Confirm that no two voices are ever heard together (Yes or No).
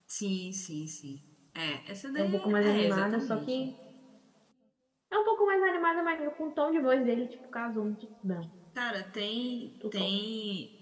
No